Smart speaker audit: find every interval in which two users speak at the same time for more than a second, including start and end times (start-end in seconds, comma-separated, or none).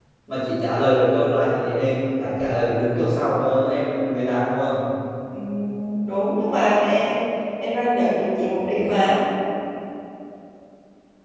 none